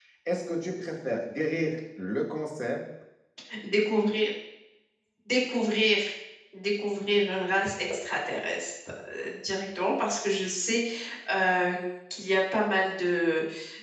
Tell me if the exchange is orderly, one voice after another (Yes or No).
Yes